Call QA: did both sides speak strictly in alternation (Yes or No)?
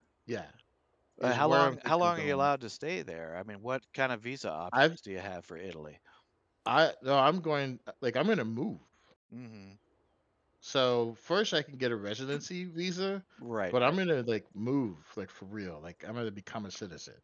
No